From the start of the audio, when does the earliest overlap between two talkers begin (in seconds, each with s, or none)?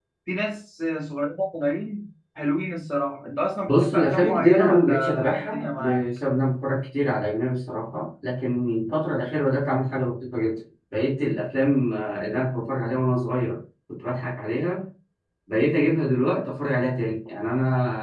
3.7 s